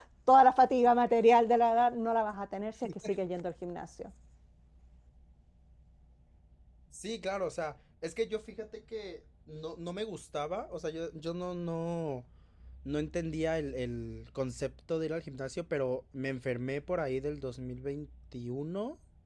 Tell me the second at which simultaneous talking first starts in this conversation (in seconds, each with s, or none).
none